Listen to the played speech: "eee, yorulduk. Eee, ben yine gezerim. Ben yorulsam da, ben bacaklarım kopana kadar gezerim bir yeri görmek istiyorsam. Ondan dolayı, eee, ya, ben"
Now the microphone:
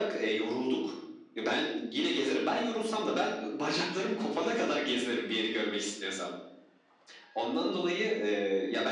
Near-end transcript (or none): none